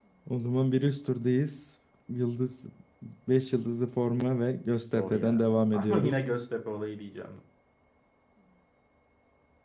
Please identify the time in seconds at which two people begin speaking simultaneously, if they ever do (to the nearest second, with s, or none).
5 s